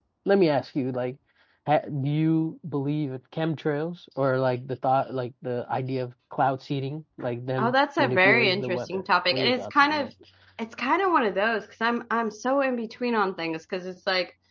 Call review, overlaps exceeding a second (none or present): present